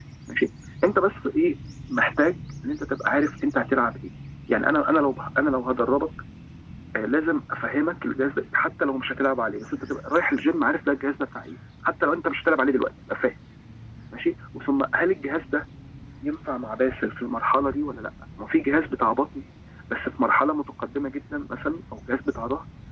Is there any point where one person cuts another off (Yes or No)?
No